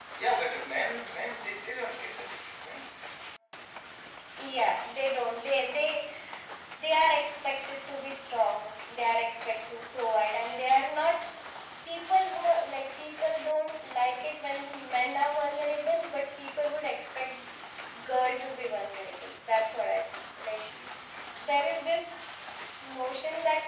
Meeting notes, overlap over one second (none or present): none